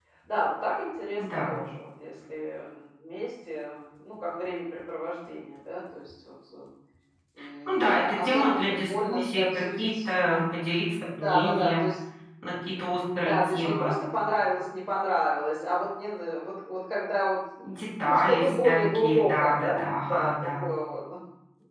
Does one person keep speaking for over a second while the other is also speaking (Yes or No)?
Yes